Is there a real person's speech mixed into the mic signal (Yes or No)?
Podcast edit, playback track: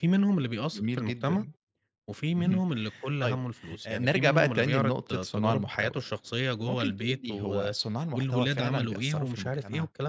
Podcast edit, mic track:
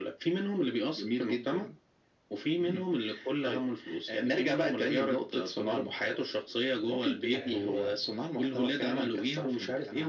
Yes